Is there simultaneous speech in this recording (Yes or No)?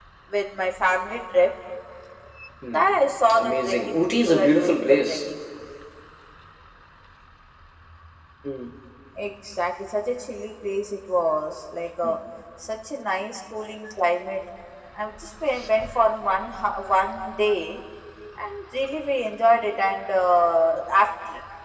Yes